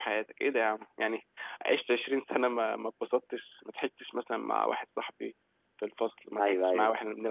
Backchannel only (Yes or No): Yes